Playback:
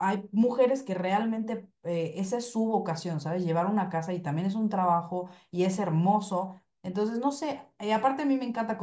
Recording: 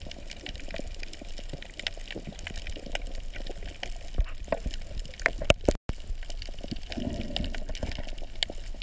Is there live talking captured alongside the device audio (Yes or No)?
No